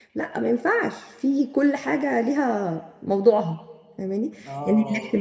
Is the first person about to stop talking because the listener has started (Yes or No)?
No